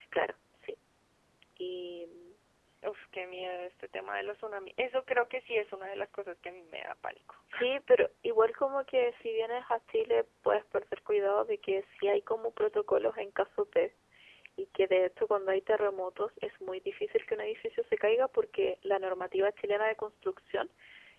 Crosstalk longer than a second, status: none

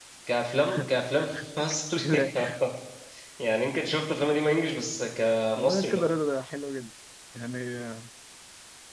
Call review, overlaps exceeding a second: none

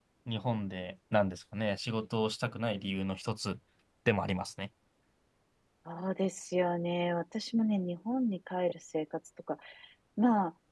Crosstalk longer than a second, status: none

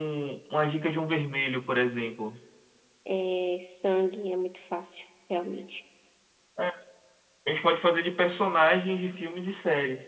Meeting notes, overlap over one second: none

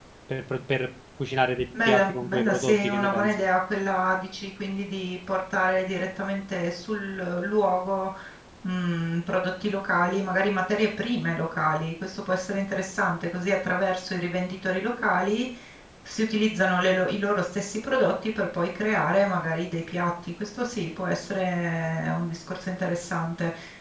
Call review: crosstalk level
present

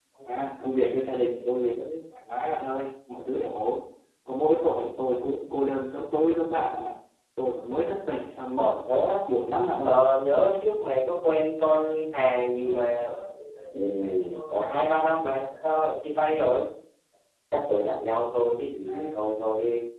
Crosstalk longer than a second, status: none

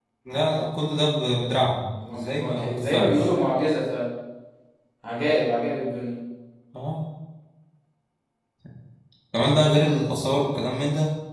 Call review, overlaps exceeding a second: present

